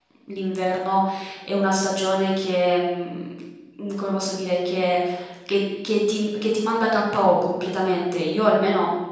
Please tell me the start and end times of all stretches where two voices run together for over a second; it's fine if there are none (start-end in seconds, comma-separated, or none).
none